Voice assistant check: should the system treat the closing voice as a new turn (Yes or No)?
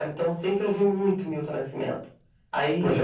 Yes